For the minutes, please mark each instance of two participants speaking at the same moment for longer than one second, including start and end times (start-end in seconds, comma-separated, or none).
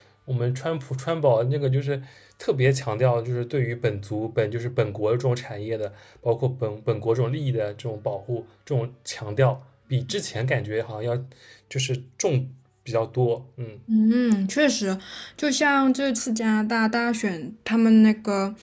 none